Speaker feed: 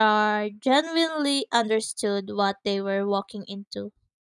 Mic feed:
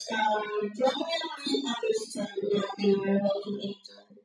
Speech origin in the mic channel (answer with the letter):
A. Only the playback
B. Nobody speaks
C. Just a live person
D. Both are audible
A